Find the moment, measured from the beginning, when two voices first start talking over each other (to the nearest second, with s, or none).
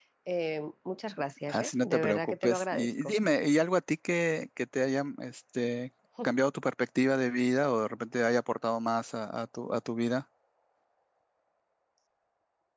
1 s